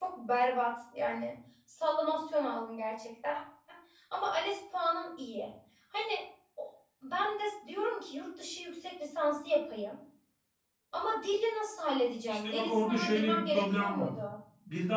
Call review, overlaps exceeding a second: present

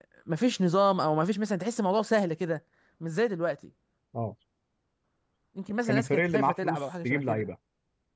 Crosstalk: present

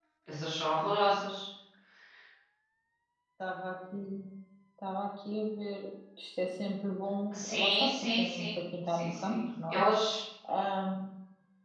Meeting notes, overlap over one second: present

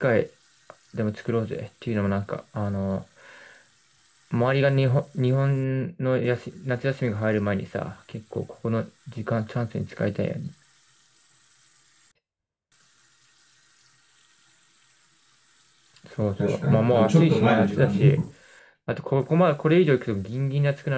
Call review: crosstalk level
present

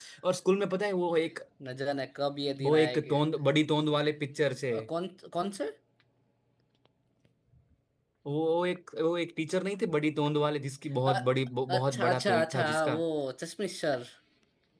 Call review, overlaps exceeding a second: present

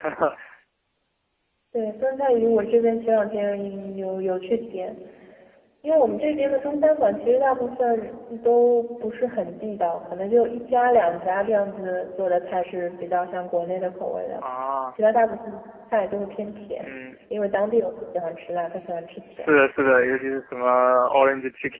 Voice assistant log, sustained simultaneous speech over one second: none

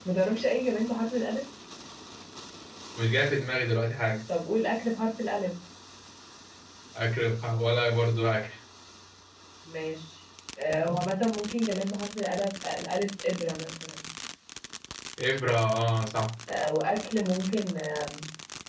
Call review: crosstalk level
none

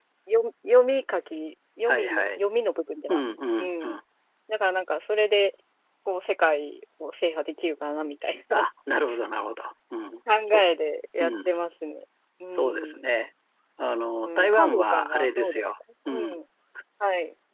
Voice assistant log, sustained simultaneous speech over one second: present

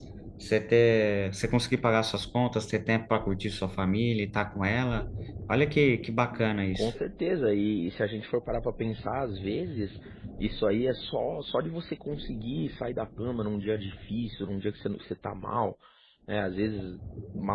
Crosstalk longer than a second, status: none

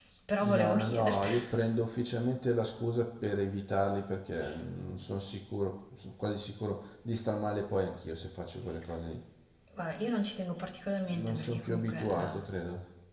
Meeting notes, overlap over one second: present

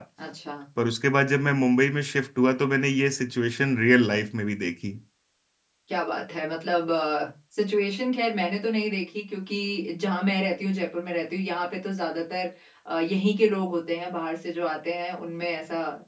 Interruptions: none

